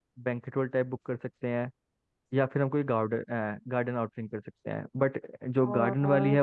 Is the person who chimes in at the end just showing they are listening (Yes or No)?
Yes